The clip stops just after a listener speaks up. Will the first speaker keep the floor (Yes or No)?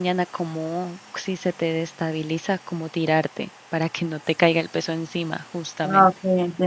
No